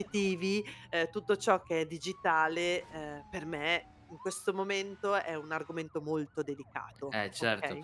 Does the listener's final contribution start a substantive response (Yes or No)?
Yes